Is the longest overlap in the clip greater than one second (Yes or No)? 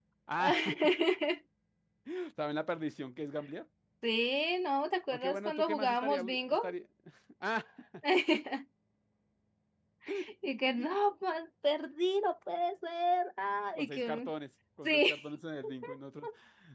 Yes